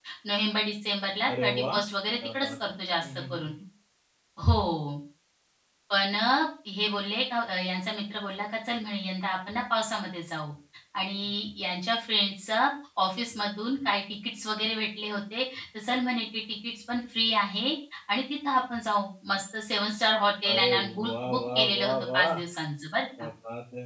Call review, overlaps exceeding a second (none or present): present